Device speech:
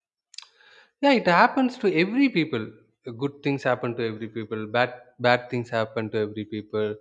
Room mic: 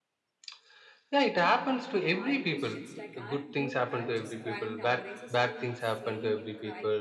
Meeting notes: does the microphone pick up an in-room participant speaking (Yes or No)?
Yes